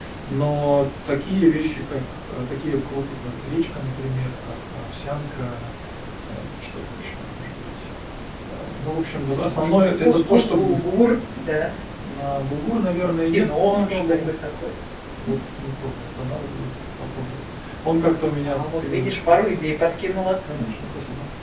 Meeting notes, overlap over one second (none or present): present